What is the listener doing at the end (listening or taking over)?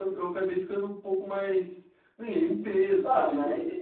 taking over